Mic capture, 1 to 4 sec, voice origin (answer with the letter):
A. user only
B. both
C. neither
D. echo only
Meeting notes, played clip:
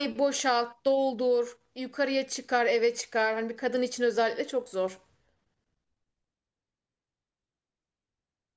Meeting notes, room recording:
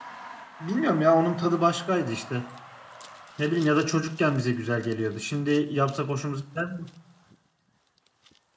A